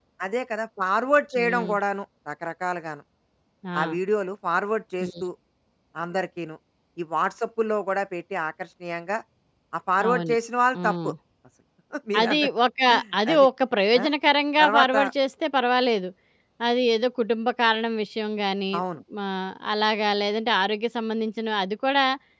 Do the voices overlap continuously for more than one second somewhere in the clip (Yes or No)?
No